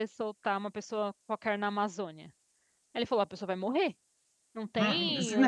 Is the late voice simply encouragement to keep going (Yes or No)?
No